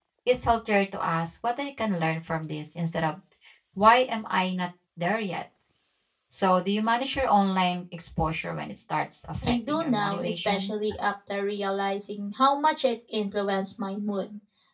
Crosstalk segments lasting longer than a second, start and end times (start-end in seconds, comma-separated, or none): 9.4-10.7